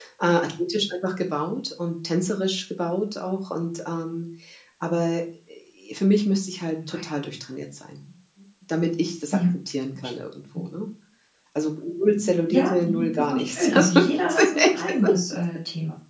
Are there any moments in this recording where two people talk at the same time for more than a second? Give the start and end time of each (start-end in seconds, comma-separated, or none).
12.5-14.8